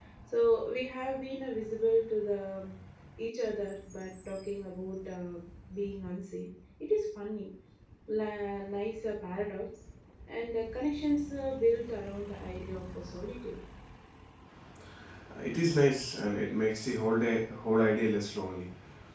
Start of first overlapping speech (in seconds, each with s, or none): none